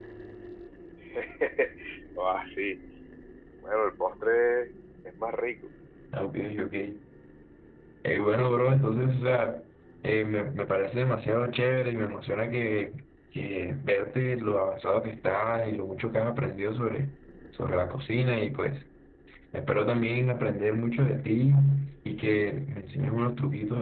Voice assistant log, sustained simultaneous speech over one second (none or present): none